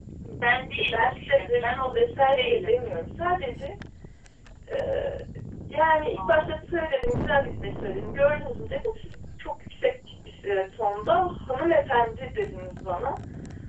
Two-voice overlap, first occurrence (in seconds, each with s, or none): 0.8 s